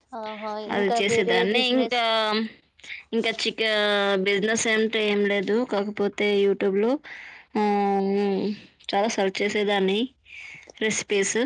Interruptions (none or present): present